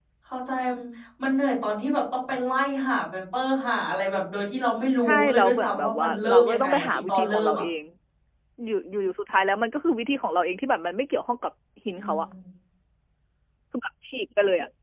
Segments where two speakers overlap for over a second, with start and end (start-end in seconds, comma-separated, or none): 5.1-7.6